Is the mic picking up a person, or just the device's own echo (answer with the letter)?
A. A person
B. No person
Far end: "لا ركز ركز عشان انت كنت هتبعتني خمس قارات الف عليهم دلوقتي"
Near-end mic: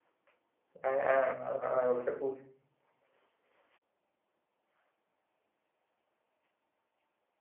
A